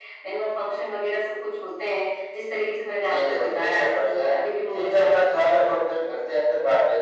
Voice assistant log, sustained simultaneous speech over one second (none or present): present